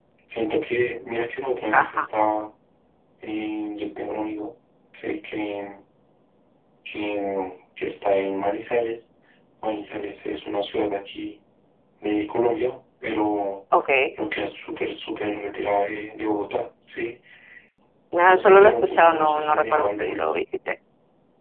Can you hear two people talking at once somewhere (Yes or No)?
Yes